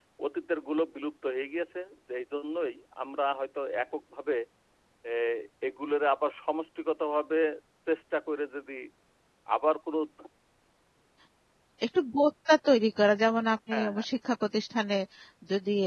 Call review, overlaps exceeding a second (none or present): none